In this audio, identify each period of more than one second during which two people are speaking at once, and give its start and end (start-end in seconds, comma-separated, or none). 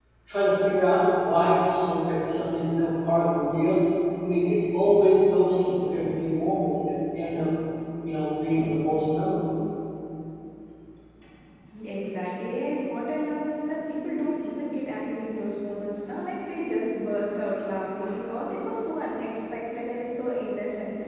none